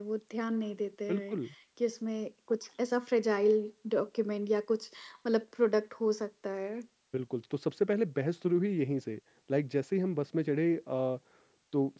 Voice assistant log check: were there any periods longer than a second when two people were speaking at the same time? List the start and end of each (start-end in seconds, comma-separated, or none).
none